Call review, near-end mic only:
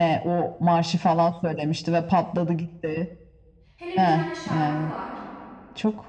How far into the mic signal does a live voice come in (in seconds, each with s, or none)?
3.8 s